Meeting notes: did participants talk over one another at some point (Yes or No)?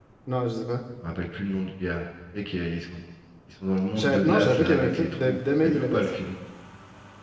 Yes